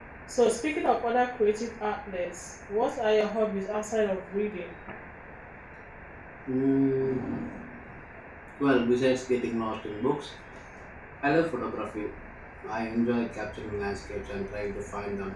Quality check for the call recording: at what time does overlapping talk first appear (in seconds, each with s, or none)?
none